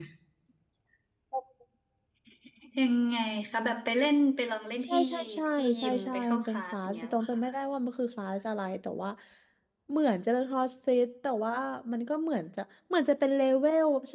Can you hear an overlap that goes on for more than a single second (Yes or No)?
Yes